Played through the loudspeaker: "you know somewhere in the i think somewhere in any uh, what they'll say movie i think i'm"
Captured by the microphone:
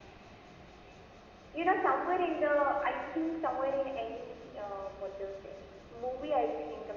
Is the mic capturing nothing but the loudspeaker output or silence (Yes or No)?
Yes